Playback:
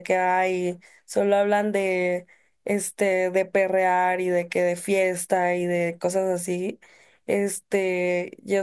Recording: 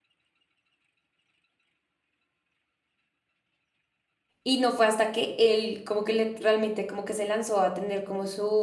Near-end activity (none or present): present